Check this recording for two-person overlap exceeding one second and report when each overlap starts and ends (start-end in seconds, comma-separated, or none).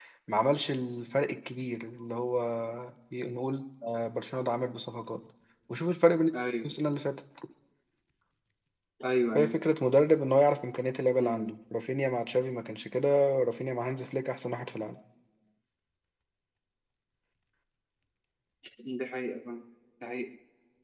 none